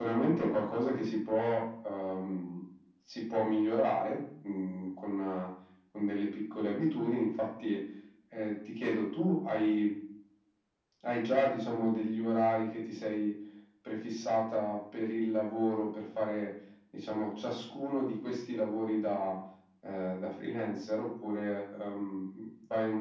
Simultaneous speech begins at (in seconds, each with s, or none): none